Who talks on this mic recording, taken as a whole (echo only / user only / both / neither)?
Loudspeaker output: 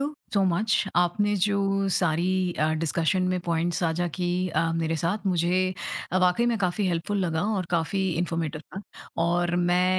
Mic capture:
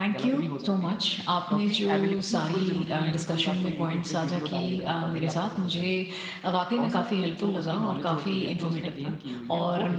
both